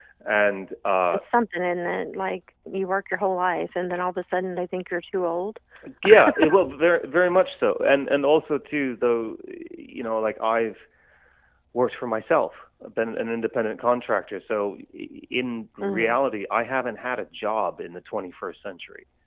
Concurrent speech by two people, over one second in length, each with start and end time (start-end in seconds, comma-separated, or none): none